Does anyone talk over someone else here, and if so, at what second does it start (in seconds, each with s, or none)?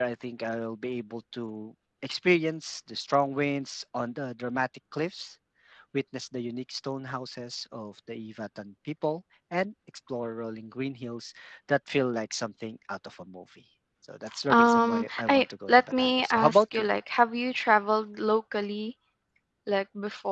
14.3 s